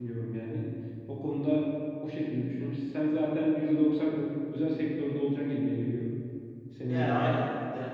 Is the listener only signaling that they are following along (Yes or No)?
No